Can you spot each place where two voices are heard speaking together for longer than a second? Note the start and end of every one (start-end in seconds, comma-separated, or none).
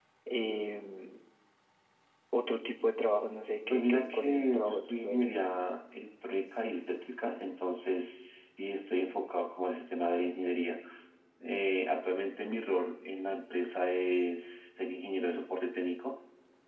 3.7-5.4